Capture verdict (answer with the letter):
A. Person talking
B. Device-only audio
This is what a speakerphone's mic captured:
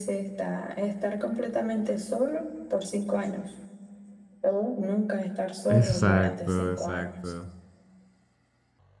A